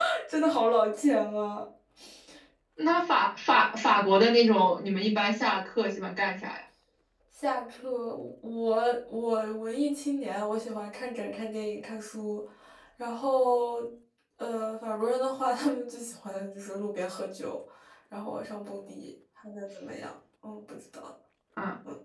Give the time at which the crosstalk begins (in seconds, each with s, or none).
none